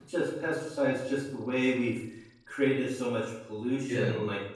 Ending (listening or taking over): listening